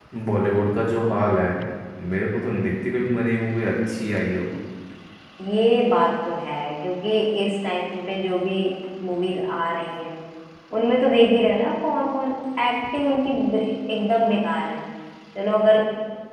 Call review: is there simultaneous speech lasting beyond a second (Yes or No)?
No